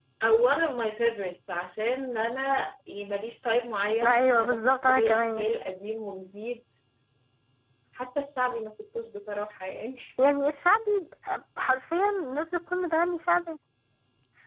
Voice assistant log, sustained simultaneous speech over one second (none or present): present